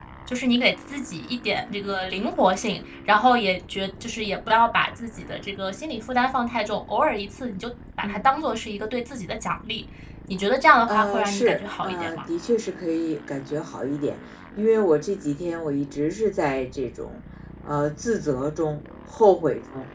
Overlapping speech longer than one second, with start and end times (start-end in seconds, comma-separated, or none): 10.9-12.2